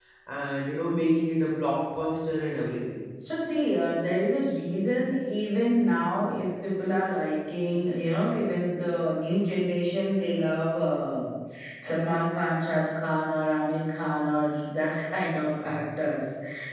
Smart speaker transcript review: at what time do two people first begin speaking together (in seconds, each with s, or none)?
none